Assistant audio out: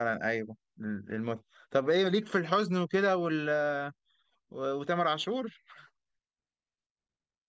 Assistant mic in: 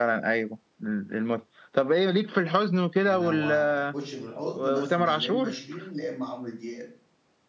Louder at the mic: echo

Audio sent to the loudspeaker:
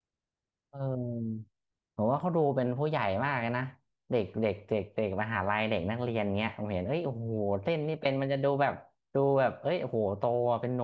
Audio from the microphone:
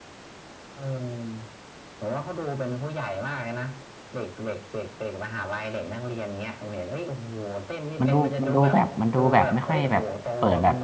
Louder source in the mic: user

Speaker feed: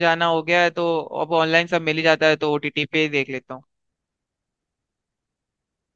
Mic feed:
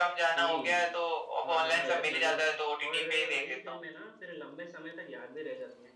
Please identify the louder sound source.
echo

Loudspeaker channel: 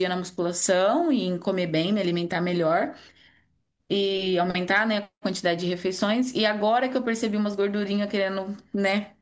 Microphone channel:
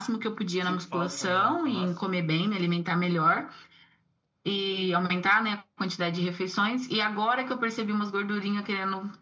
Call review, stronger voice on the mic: echo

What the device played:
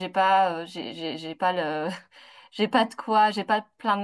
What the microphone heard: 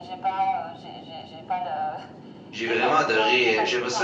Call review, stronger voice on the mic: user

